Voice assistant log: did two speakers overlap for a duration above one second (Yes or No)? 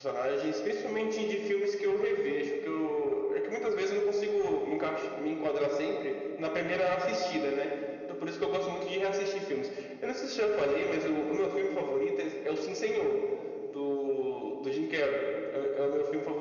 No